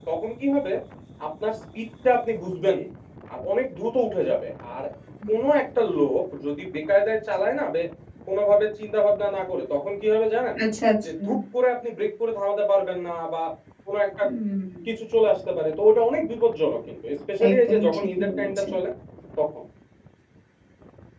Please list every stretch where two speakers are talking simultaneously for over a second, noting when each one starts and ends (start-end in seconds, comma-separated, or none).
17.5-18.7